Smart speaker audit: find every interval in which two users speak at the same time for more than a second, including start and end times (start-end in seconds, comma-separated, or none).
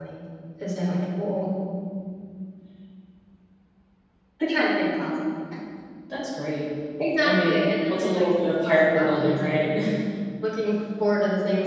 7.2-9.8